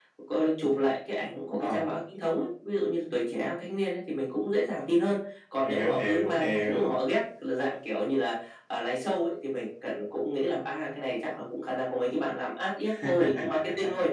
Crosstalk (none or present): present